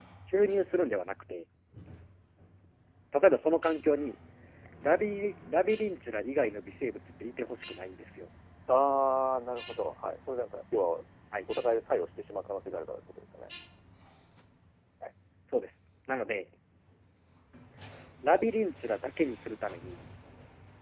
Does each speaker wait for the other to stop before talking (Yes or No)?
Yes